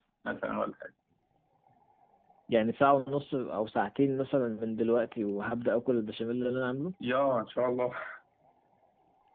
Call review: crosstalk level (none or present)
none